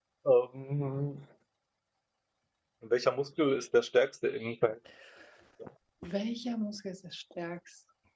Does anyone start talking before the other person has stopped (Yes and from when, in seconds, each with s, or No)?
No